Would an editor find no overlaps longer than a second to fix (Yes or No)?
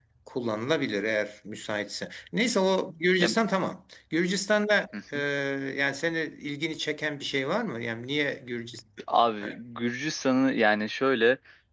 Yes